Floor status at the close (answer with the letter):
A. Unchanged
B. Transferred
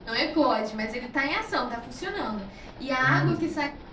A